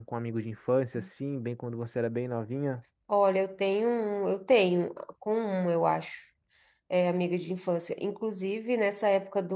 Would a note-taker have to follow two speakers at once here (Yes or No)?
No